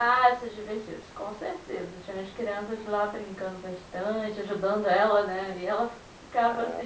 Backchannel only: Yes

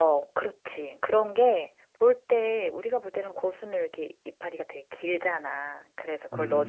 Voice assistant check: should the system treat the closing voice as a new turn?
No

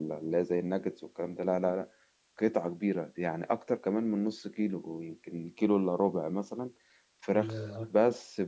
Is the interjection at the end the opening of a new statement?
No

